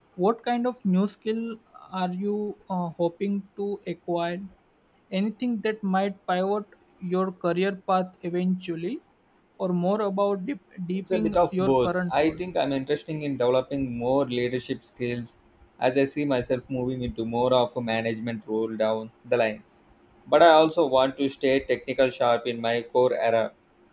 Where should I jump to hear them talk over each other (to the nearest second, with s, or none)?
11 s